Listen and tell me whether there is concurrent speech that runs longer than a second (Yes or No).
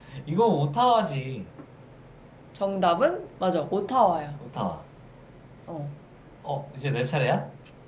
No